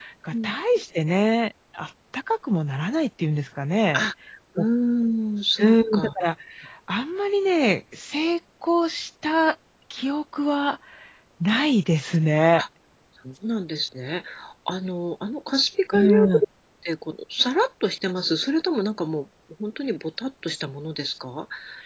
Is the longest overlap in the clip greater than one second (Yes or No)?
No